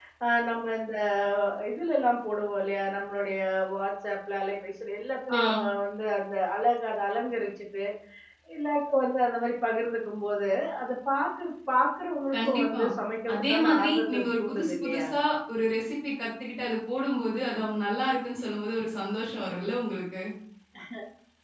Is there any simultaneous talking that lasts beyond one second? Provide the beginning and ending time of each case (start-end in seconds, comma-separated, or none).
13.3-15.1